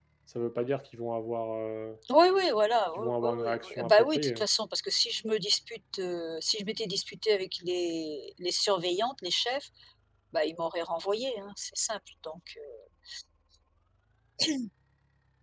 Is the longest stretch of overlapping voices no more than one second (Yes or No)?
No